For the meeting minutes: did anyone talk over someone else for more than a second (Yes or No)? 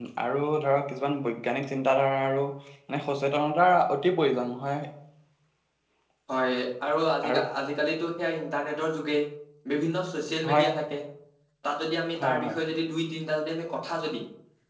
No